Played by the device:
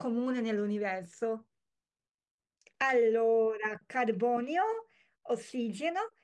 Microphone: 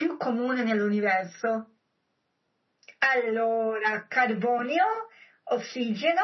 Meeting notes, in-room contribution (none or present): none